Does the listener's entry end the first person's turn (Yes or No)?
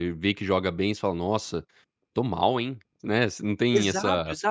Yes